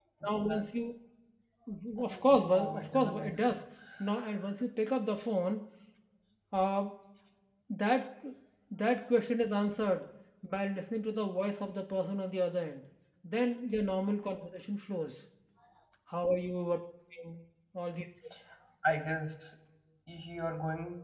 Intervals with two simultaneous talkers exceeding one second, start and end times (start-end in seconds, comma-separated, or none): 2.0-3.6